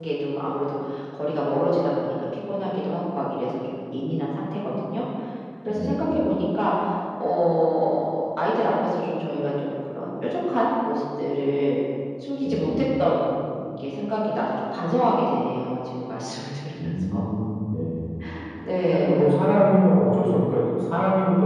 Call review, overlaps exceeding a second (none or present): none